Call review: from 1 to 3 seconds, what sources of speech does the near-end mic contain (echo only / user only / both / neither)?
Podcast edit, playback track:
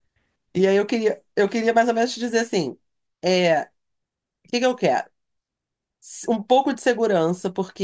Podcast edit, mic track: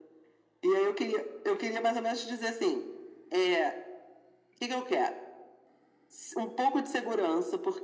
echo only